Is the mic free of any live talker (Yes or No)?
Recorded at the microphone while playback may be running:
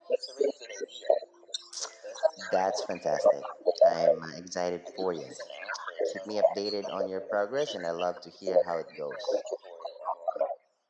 No